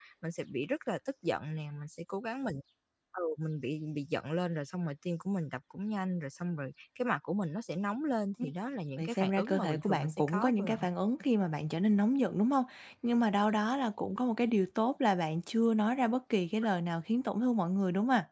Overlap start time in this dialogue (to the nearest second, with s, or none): 9 s